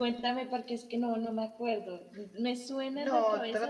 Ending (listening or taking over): taking over